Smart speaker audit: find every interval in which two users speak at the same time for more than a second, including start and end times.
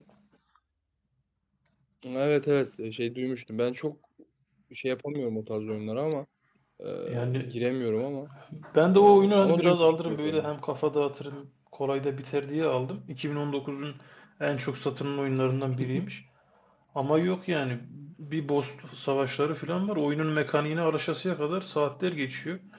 8.9-10.5

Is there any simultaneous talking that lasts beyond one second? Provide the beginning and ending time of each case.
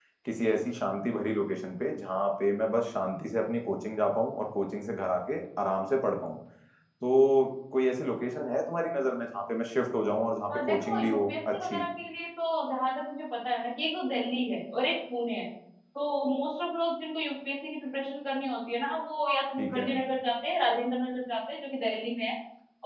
10.5-11.8

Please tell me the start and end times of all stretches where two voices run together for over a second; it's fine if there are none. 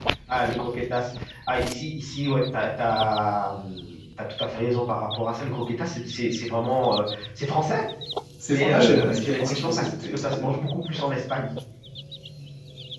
8.5-10.6

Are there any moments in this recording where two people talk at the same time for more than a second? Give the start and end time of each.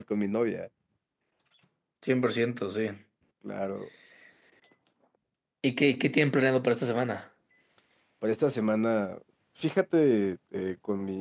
none

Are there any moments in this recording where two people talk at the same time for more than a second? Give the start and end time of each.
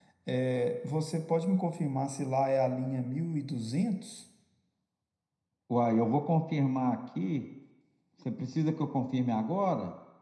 none

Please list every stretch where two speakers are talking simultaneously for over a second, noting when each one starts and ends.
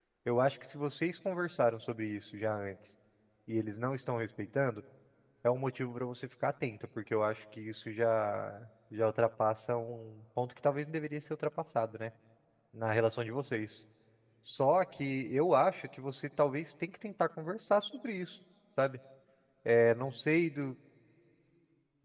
none

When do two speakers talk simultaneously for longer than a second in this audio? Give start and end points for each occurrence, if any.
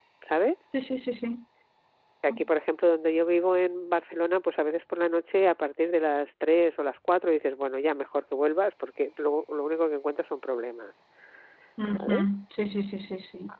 none

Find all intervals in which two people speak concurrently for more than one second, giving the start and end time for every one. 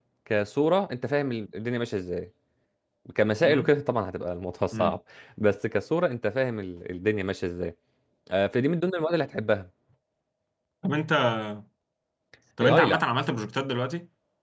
none

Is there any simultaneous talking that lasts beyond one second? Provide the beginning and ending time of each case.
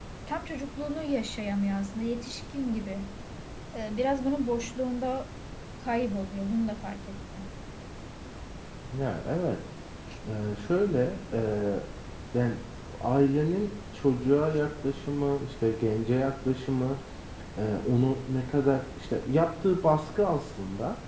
none

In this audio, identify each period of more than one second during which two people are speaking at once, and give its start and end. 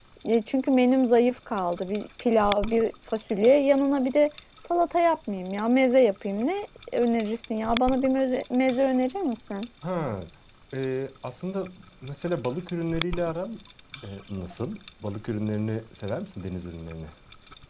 none

